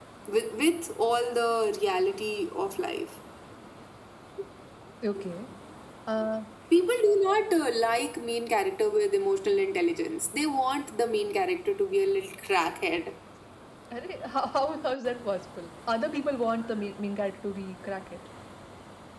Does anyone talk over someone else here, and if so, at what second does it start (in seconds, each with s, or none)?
none